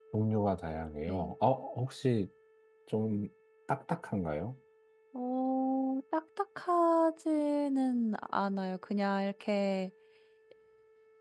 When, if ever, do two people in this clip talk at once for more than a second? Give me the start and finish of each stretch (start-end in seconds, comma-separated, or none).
none